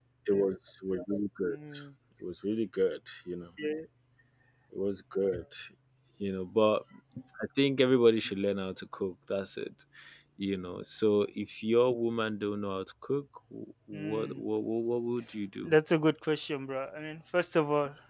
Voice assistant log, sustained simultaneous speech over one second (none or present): none